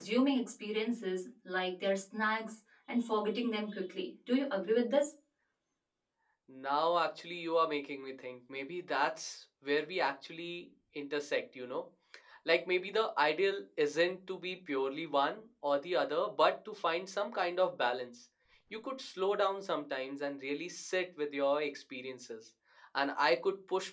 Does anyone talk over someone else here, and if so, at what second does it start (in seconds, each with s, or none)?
none